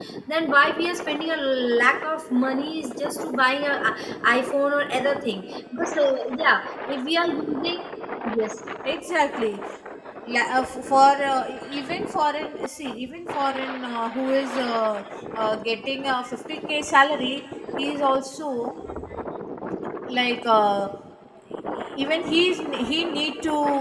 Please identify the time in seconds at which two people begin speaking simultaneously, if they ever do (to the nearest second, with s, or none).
none